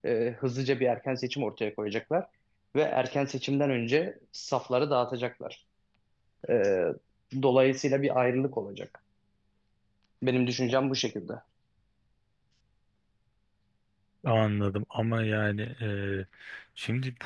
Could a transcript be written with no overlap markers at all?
Yes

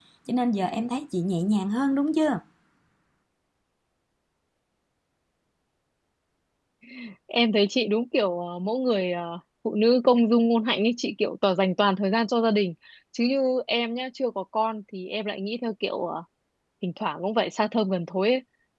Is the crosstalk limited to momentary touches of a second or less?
Yes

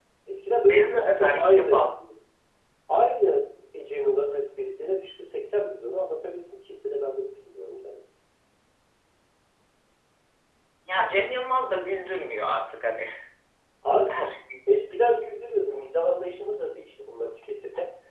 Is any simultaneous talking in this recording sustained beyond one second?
Yes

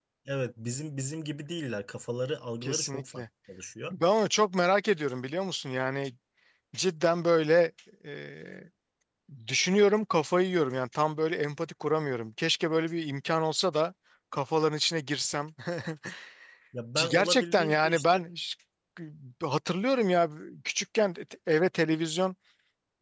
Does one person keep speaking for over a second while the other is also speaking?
Yes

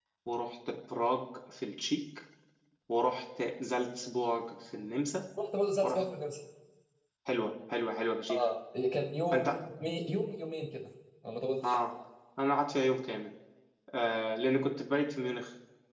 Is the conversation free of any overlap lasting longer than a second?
Yes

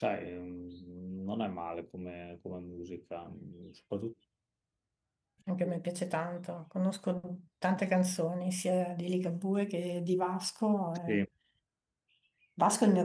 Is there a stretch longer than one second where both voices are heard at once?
No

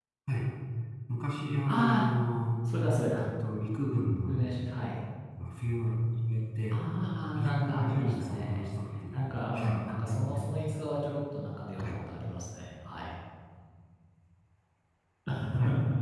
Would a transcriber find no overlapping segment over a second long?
No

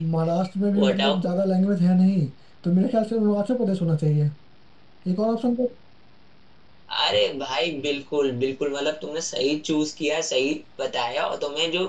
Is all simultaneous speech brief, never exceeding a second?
Yes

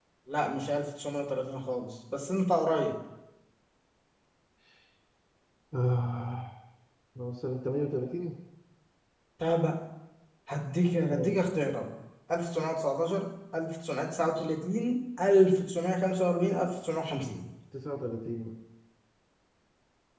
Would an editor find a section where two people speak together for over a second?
No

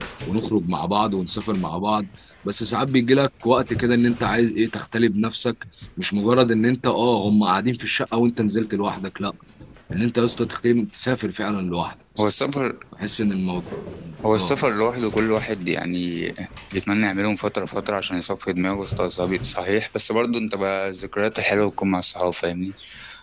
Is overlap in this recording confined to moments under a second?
Yes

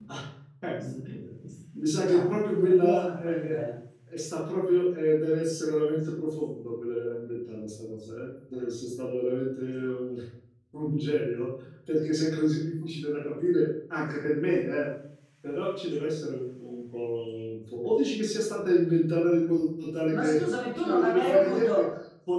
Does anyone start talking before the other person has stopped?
Yes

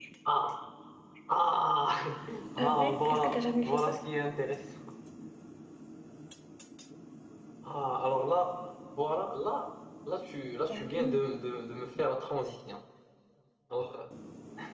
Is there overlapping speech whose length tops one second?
Yes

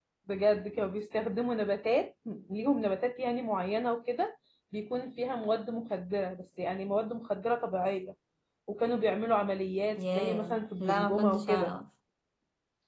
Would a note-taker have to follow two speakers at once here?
Yes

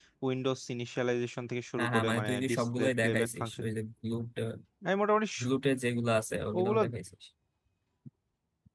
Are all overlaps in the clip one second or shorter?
No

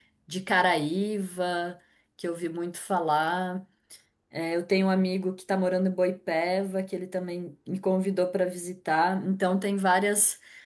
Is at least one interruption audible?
No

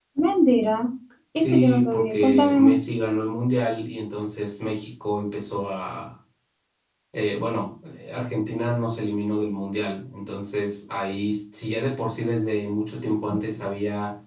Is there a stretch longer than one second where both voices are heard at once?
Yes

